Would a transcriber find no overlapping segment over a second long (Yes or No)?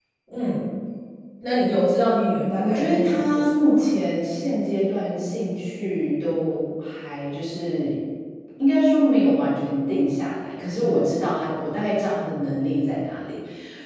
No